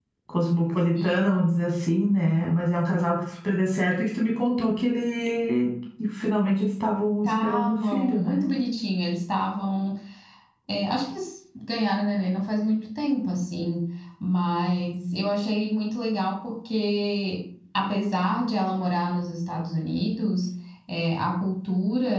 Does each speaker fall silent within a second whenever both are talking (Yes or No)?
No